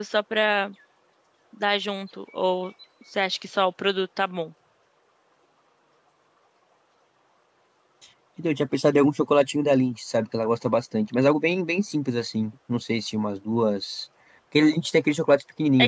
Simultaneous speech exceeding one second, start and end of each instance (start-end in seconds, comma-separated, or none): none